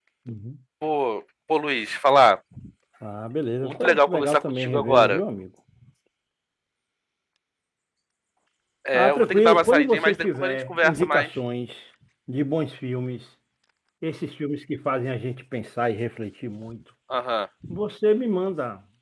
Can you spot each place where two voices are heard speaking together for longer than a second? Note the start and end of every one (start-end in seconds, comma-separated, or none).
3.6-5.2, 8.9-11.3